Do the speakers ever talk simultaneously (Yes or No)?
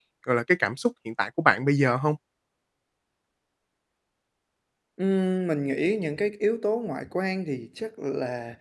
No